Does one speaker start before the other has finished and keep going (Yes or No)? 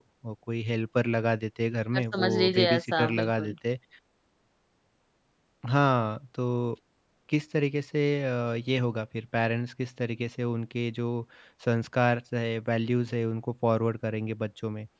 Yes